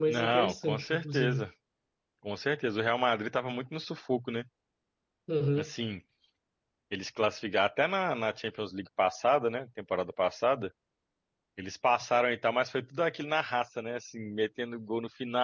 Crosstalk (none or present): present